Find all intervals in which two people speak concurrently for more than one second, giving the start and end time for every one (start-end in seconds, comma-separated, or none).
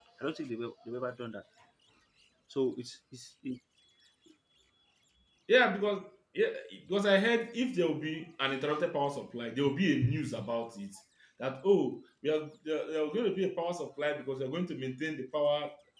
none